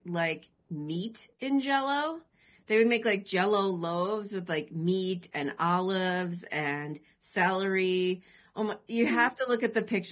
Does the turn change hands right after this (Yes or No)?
No